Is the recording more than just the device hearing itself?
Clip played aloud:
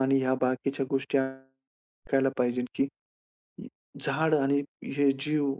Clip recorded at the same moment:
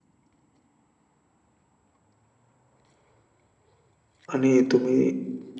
Yes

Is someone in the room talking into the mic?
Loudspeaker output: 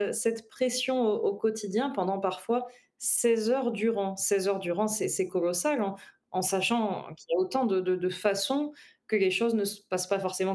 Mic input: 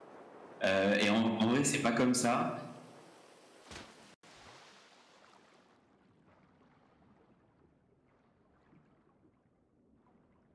Yes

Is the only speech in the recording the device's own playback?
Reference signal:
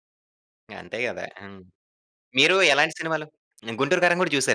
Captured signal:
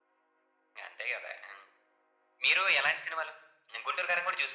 Yes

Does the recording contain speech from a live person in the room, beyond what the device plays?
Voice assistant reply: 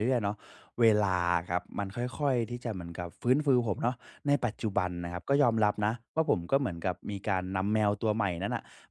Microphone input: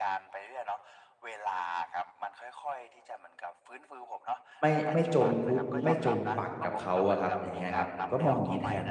Yes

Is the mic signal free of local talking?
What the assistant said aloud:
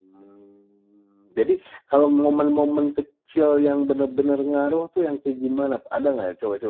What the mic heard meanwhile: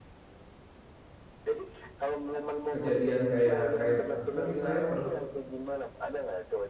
No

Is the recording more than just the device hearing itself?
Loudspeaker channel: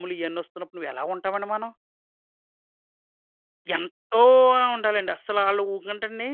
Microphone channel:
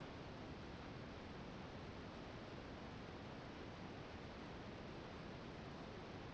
No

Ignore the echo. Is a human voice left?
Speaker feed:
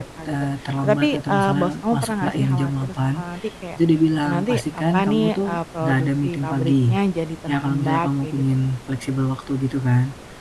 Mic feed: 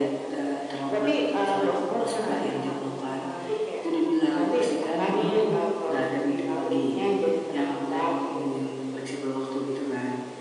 Yes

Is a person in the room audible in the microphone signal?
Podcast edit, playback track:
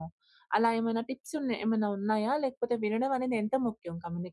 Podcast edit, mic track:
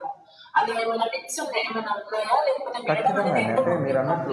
Yes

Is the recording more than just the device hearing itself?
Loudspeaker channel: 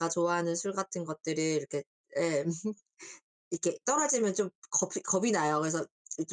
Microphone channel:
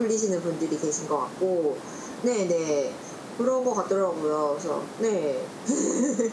Yes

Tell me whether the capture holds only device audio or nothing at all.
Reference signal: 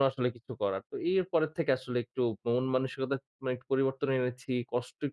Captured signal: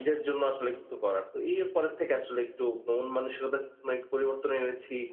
Yes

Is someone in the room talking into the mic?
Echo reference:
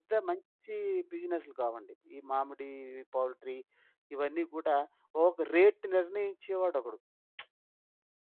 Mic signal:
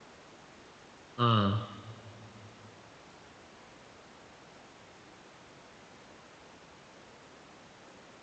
Yes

